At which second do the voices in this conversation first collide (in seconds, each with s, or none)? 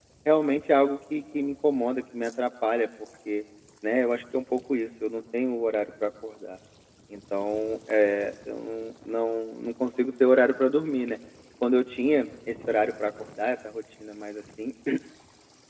none